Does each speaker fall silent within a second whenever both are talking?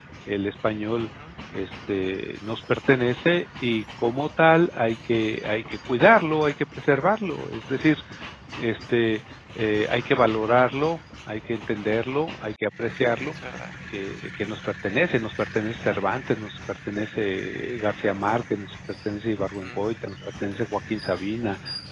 Yes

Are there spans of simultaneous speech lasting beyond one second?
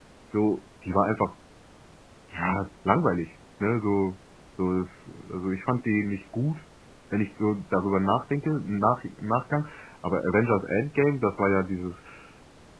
No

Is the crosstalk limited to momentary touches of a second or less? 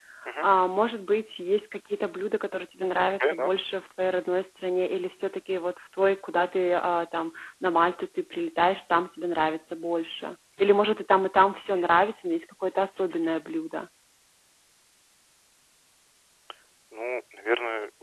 Yes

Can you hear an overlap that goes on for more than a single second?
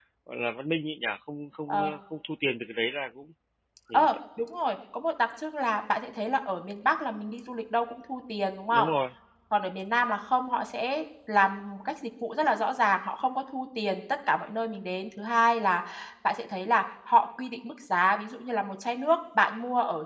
No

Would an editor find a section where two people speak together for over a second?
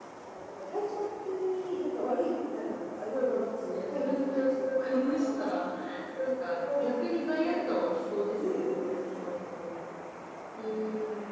Yes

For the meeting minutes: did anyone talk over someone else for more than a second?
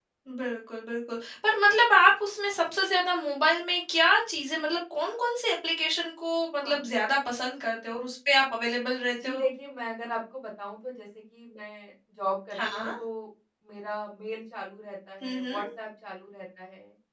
No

